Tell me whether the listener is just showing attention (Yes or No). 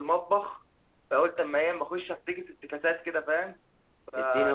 No